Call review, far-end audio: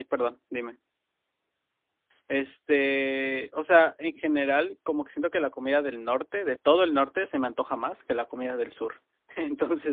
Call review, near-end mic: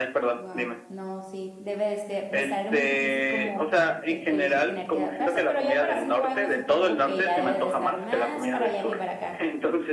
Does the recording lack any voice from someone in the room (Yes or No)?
No